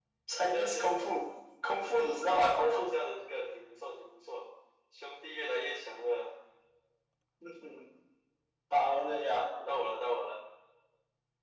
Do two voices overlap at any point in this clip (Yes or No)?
Yes